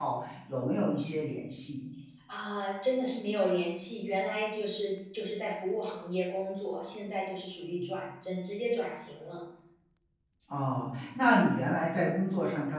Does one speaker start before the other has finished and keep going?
No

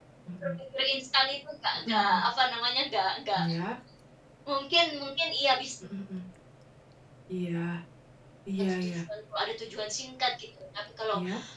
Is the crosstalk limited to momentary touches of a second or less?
Yes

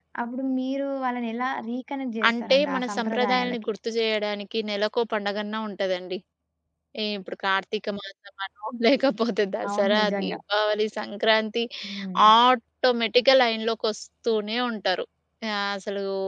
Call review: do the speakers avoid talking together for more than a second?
No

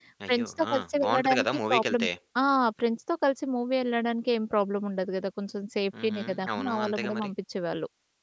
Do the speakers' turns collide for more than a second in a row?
Yes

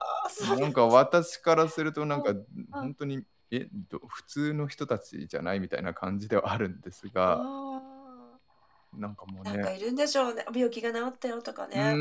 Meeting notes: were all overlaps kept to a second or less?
Yes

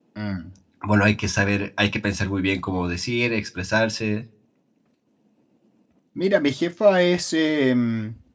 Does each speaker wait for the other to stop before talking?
Yes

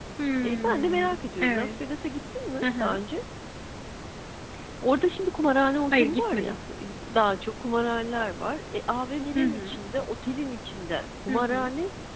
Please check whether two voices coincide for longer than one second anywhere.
Yes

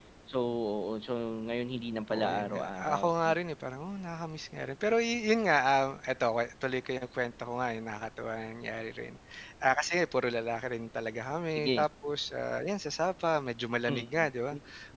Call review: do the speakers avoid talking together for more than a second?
No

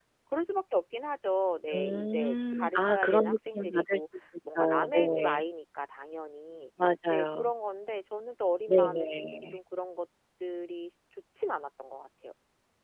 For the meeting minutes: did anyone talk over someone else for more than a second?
Yes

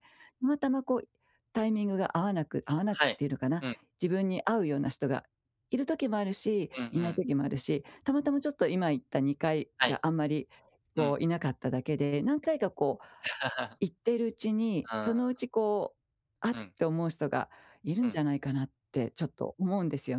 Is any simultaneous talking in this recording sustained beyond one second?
No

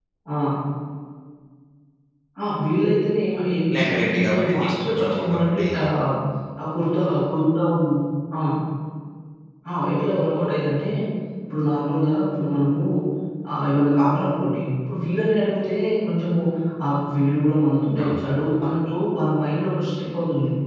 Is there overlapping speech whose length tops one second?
Yes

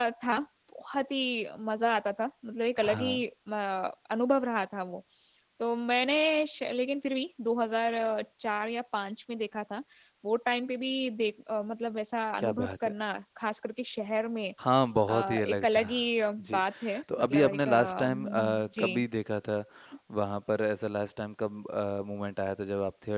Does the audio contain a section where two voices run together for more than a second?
Yes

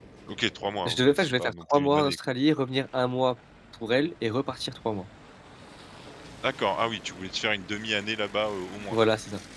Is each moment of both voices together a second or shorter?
No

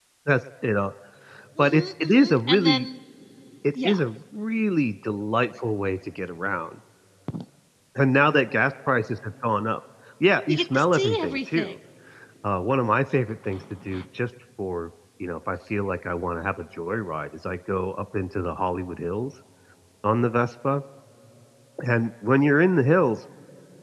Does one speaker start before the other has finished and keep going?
Yes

